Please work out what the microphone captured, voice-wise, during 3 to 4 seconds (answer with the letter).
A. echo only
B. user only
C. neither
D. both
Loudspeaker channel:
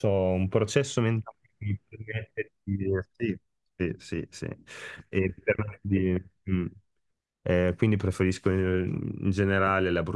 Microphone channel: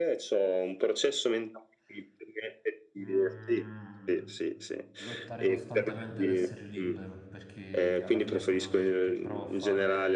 D